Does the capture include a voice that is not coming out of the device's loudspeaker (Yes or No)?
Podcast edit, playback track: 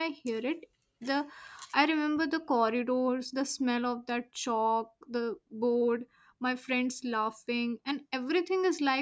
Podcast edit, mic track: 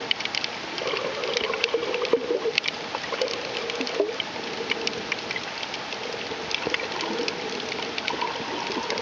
No